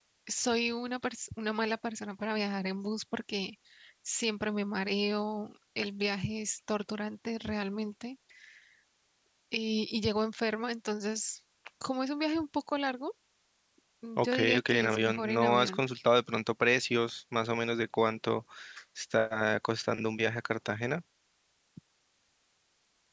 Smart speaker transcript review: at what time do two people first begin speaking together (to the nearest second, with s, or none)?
14 s